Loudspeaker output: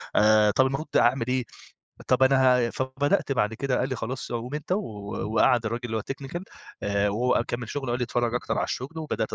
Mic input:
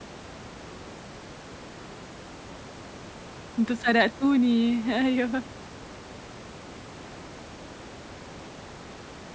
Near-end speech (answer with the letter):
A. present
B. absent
A